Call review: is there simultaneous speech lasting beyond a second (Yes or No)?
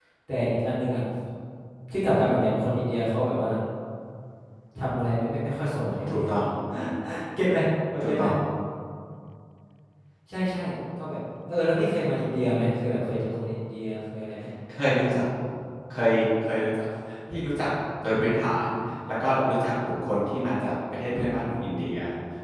No